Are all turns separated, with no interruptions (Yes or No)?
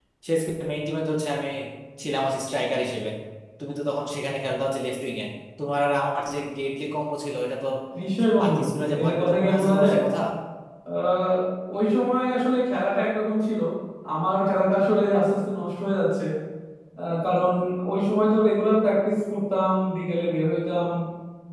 No